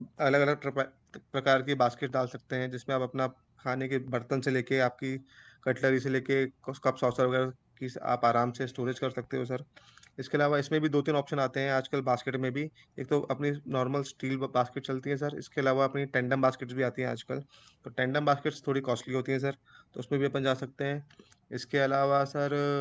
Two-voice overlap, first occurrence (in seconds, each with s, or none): none